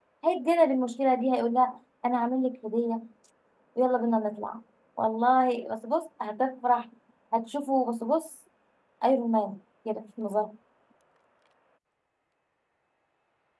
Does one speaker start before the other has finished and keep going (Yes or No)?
No